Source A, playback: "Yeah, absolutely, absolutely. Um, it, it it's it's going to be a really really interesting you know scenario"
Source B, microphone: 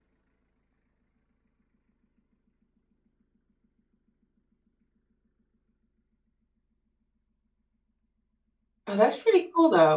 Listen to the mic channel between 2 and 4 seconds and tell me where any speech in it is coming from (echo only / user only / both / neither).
neither